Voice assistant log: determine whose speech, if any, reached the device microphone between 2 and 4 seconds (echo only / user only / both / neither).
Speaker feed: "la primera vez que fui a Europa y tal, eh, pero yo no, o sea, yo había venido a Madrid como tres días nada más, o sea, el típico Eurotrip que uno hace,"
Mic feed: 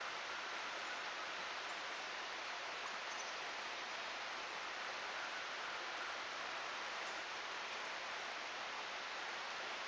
neither